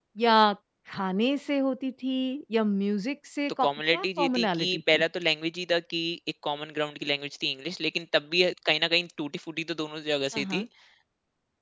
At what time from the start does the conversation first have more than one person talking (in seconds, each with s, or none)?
3.6 s